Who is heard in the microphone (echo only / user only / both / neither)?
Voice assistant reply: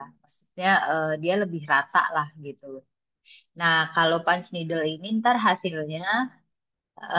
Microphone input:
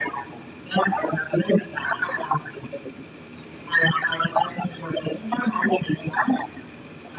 echo only